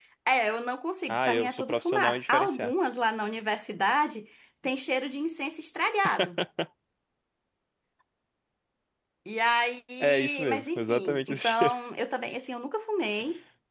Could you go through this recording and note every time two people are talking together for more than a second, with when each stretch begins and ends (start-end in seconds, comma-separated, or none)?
1.1-2.7, 10.0-11.7